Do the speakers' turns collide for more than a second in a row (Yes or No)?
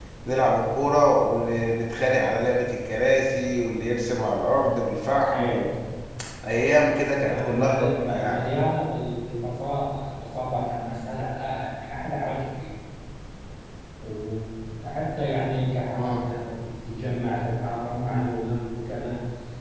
Yes